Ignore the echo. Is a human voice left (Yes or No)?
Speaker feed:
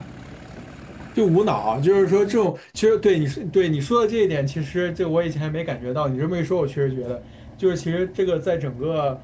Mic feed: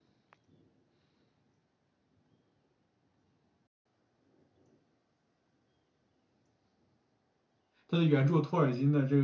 Yes